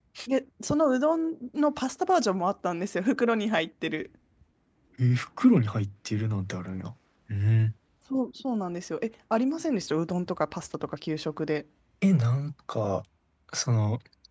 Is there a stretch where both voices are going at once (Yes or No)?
No